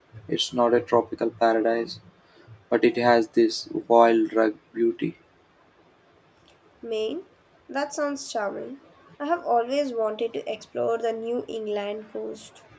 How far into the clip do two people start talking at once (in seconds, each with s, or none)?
none